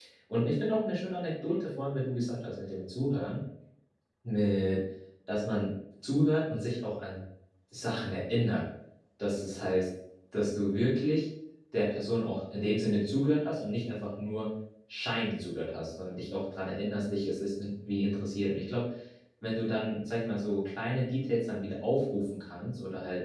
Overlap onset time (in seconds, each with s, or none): none